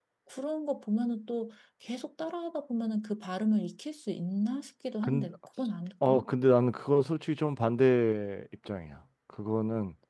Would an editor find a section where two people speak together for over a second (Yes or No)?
No